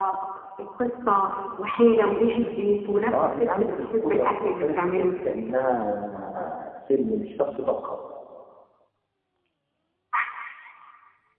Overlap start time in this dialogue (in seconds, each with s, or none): 3.1 s